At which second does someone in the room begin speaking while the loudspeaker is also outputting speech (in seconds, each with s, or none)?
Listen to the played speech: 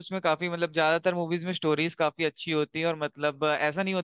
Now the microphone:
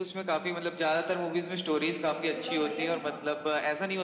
2.1 s